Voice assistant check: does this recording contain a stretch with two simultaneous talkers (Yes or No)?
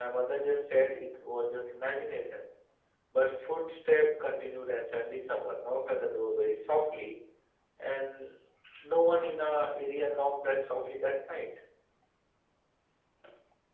No